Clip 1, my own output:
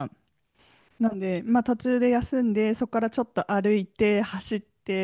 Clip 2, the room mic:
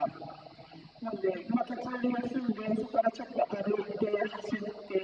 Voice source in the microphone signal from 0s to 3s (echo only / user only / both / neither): echo only